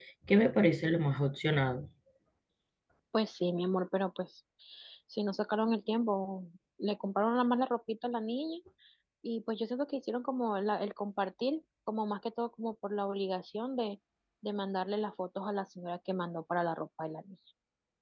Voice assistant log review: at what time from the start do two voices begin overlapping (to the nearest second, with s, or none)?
none